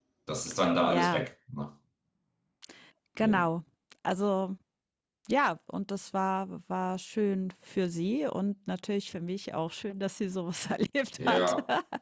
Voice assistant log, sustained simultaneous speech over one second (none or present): none